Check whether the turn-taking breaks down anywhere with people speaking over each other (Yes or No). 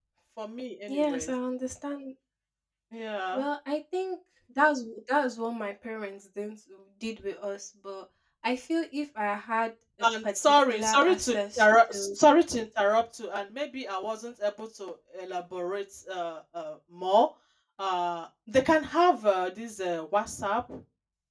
Yes